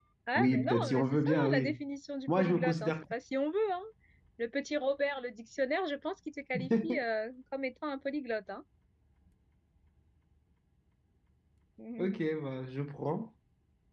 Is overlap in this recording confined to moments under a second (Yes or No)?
No